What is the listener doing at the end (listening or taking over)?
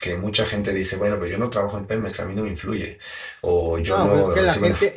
taking over